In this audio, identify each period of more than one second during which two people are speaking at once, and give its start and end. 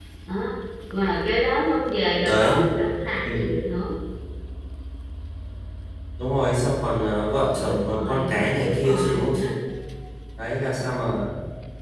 7.6-9.5

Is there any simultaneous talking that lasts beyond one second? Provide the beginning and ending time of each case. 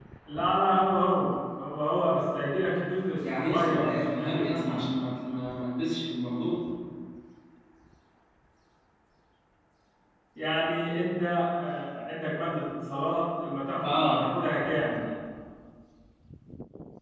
3.4-4.9

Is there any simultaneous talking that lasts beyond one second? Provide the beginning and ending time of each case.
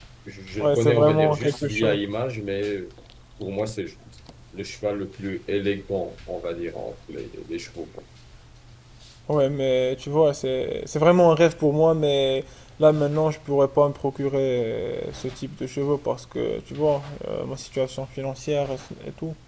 0.6-2.0

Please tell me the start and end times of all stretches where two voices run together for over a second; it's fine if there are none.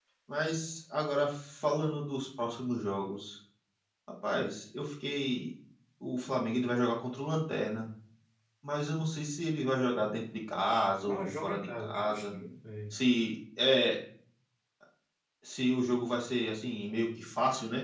11.0-12.2

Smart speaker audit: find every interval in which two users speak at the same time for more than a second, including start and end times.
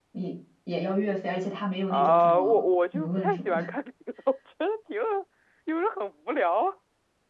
1.9-3.6

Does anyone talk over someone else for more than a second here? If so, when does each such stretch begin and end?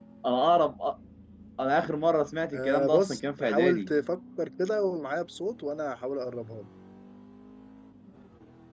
2.5-3.9

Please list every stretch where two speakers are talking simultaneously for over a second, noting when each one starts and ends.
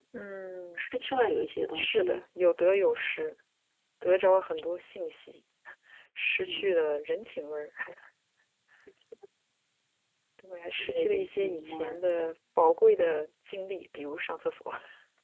10.8-12.0

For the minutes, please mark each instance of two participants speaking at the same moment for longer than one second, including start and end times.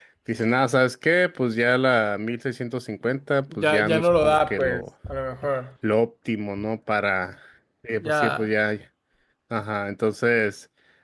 3.6-4.8

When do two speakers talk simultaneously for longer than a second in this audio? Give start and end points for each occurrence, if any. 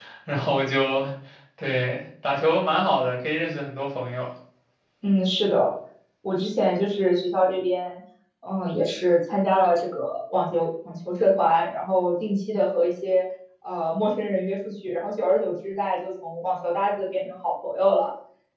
none

